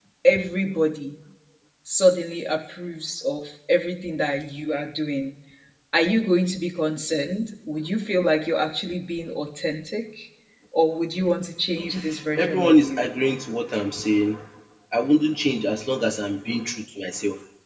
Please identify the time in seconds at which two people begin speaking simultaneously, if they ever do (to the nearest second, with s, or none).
12 s